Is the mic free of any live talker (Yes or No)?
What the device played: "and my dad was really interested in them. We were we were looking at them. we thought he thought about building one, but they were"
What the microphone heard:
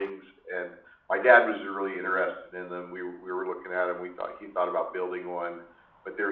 Yes